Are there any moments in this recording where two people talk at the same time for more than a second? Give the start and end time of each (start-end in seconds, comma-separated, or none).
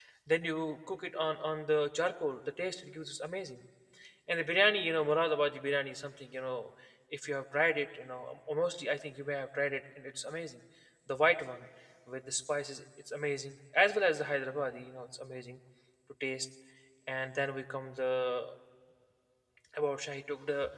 none